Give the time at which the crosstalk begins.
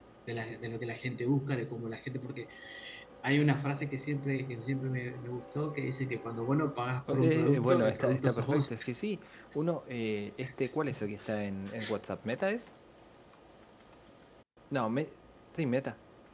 7 s

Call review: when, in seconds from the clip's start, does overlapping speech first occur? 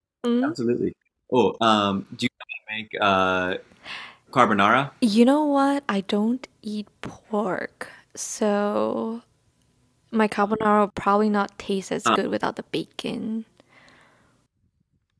none

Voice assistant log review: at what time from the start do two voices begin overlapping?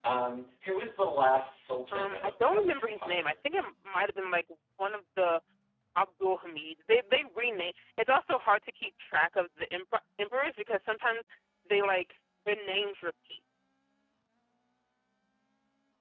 2 s

